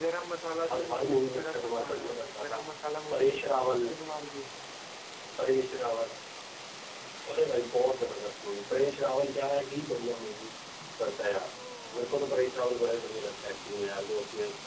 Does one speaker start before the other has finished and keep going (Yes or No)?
Yes